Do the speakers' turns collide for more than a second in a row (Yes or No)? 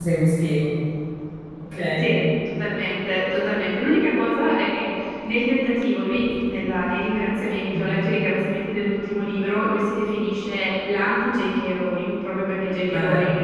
No